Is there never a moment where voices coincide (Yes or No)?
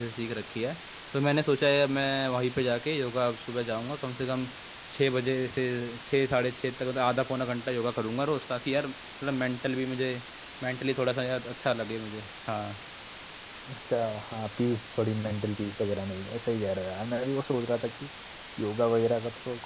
Yes